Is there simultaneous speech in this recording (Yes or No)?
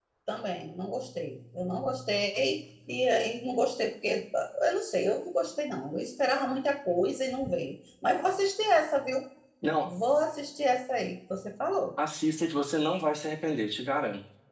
No